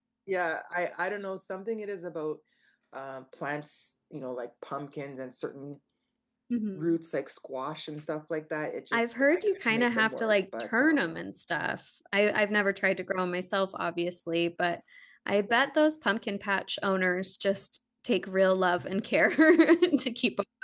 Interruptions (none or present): present